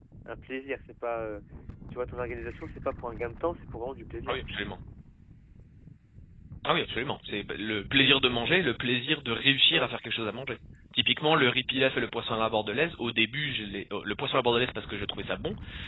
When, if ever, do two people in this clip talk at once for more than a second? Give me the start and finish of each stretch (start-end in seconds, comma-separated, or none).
none